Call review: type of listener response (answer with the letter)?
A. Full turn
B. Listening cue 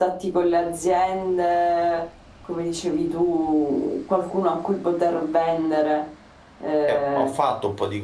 A